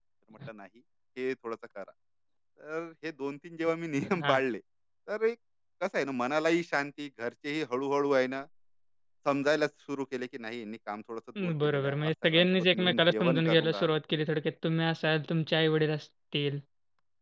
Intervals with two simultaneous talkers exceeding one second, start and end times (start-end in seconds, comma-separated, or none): 11.6-13.9